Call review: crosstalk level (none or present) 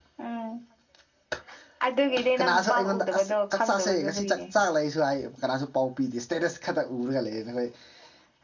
present